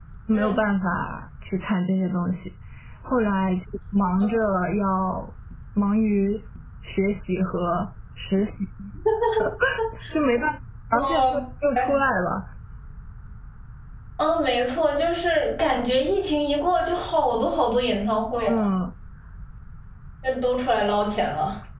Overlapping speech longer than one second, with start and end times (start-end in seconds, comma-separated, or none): none